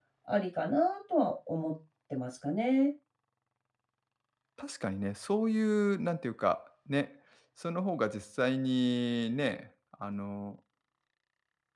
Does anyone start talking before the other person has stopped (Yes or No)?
No